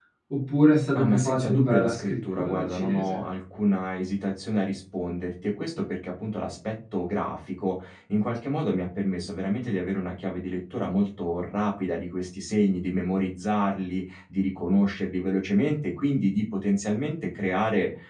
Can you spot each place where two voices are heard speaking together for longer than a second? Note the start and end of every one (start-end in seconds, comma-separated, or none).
0.9-3.2